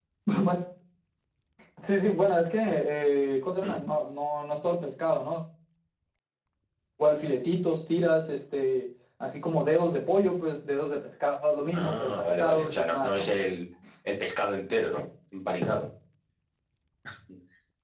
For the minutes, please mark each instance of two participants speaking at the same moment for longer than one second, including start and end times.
11.7-13.3

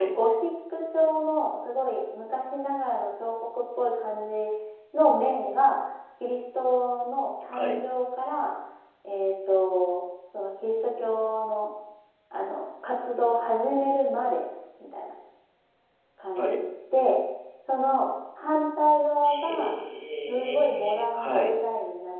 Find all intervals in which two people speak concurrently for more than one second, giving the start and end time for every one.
20.3-21.6

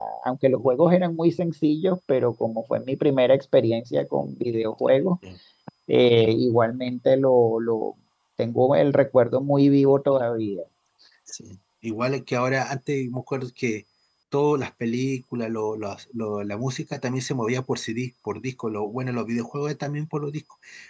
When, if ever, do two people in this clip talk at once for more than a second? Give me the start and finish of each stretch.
none

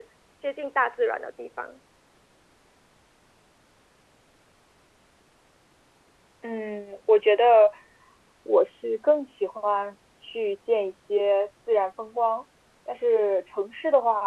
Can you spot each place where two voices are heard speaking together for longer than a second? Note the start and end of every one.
none

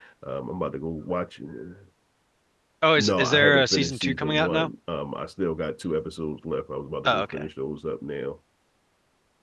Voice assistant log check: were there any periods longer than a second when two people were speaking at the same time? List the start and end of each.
3.0-4.7

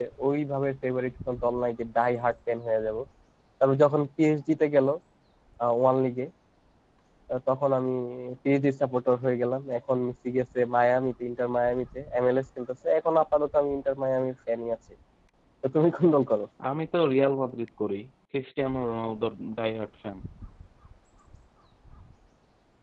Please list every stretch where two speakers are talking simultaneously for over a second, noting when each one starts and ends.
none

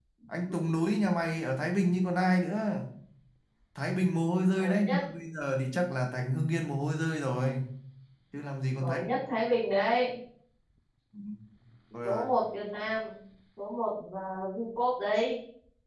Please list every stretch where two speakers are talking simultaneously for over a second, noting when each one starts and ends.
none

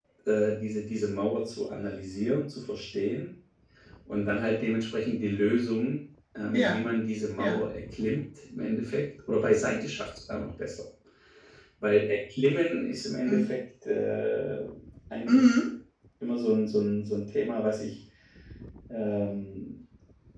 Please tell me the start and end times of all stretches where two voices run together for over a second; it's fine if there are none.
none

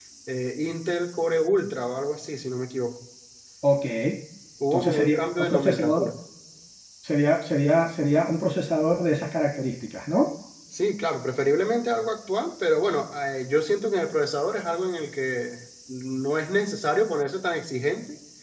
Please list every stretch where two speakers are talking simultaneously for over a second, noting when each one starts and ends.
4.7-6.1

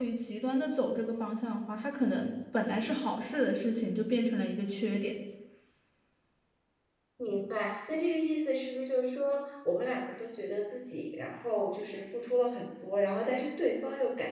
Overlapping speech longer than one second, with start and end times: none

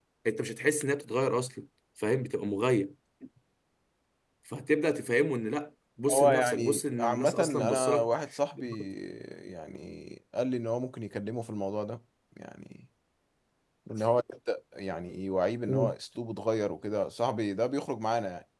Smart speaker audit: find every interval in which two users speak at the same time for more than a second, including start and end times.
6.1-8.1

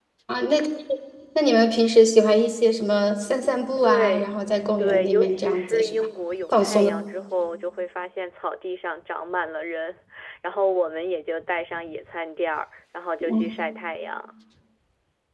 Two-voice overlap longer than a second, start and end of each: 4.8-6.1

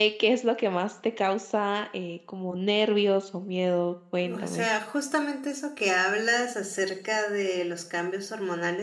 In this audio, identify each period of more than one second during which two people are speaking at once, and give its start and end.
none

